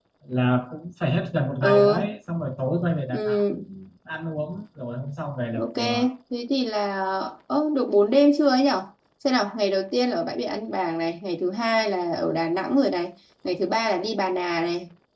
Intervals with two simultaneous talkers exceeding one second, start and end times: none

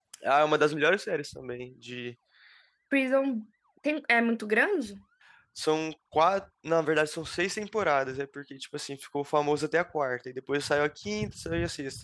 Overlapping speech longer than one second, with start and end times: none

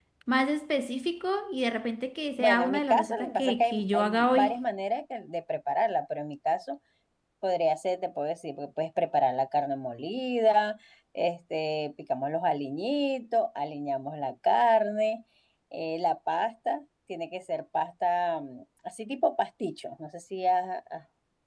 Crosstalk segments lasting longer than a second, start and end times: 2.4-4.5

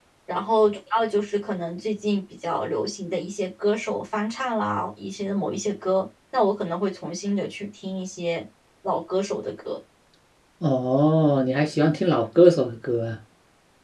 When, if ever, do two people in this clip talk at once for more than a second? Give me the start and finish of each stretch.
none

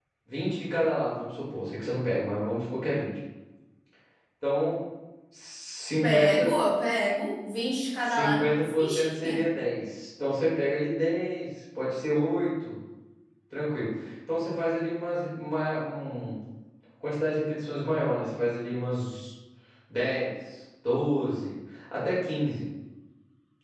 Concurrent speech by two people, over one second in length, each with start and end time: 8.0-9.4

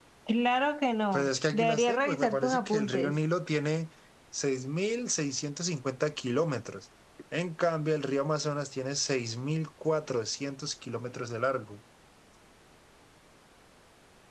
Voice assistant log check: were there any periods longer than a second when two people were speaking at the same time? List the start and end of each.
1.1-3.2

